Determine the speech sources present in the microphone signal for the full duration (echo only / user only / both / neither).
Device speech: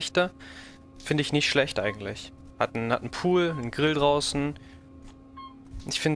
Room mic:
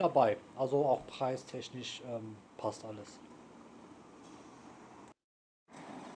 user only